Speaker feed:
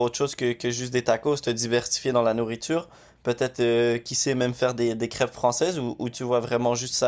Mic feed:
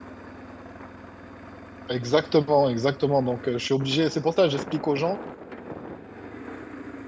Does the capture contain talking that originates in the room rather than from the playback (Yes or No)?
Yes